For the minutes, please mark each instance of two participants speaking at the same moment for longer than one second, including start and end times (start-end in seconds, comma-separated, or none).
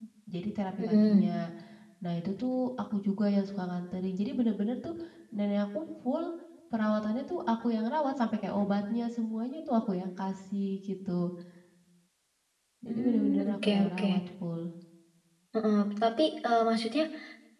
12.9-14.1